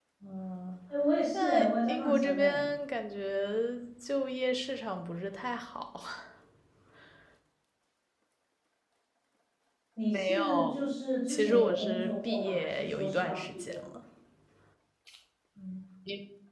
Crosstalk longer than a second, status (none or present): present